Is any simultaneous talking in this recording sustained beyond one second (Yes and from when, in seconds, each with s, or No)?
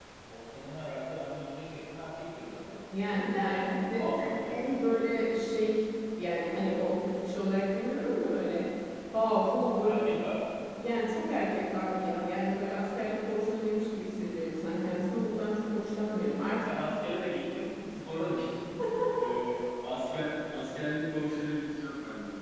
Yes, from 3.6 s